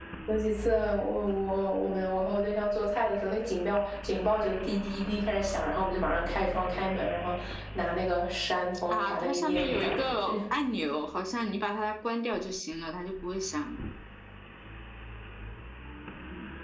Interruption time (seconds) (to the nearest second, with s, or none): 9 s